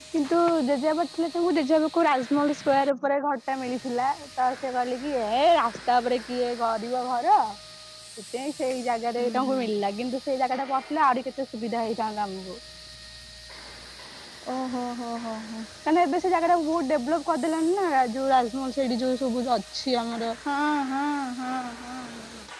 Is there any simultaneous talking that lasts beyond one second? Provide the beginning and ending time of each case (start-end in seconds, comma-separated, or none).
none